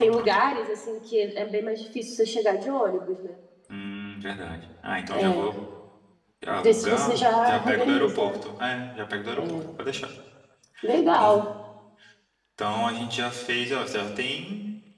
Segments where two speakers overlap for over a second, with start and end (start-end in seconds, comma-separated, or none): 6.5-8.4